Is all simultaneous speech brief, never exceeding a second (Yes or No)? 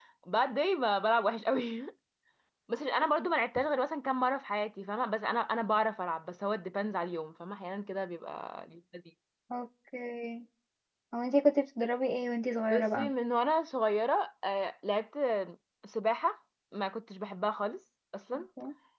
Yes